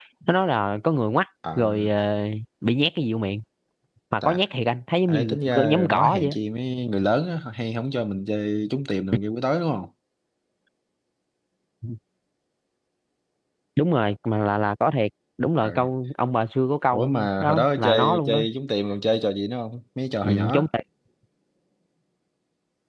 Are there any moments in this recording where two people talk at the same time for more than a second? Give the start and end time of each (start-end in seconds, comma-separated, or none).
5.1-6.3, 16.9-18.4